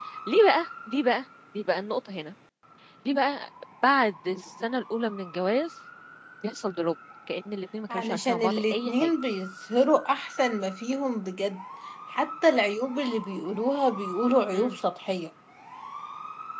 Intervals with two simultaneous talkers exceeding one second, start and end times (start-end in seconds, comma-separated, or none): 7.9-9.1